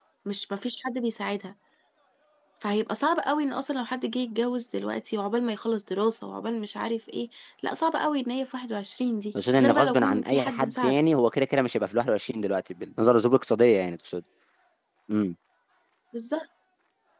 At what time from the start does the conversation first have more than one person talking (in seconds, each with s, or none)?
9.3 s